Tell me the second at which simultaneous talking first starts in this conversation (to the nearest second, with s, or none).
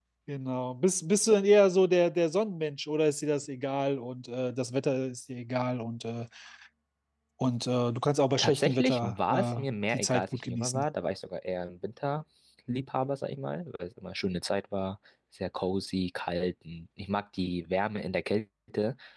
8 s